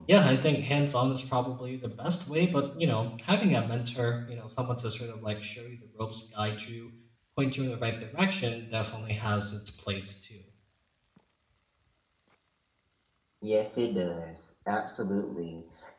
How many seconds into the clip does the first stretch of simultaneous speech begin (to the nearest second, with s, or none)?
none